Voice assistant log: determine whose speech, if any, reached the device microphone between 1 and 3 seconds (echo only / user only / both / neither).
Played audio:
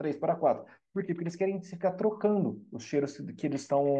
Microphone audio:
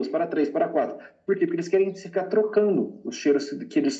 echo only